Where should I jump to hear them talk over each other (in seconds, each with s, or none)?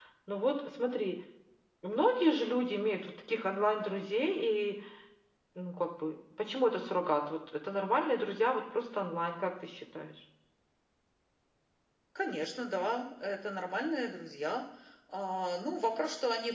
none